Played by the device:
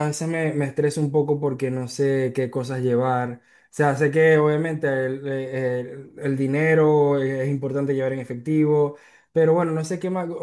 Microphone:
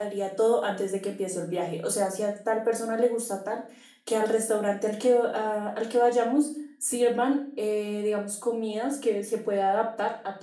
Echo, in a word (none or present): none